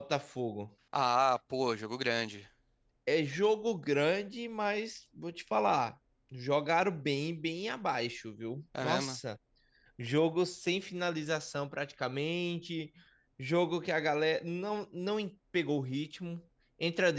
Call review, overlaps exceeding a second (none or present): none